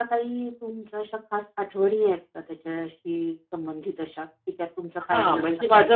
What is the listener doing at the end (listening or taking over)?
taking over